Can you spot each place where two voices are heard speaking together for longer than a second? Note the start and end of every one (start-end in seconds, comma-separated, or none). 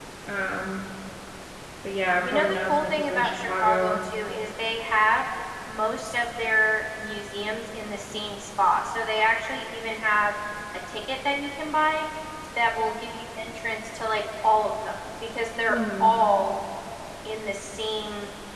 2.2-4.0